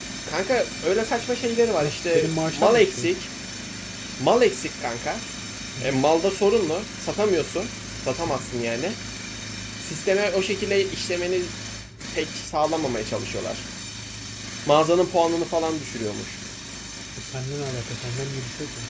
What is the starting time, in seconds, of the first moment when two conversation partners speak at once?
1.8 s

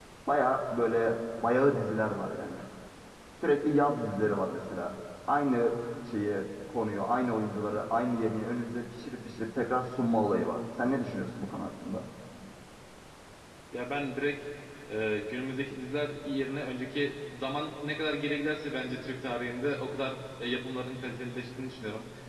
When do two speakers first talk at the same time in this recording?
none

